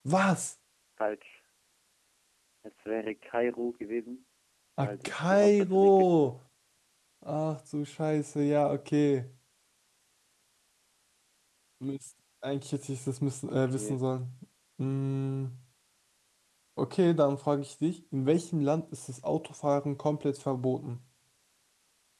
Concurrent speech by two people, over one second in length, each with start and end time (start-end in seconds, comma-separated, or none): 4.8-6.3